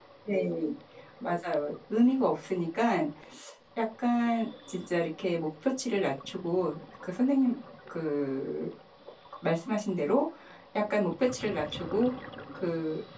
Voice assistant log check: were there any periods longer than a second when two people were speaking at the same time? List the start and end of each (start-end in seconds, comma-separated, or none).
none